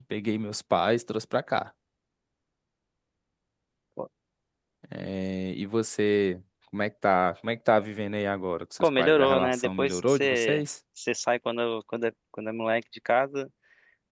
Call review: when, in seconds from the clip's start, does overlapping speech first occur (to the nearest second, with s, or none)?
9 s